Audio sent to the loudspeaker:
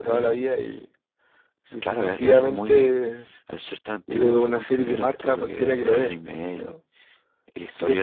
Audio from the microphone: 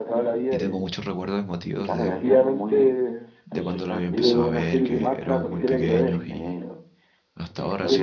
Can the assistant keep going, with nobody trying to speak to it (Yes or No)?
No